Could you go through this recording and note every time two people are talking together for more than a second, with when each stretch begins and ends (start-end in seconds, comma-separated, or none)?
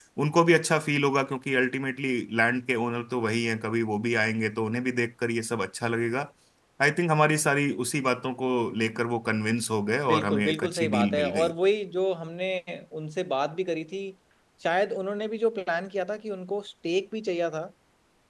10.1-11.5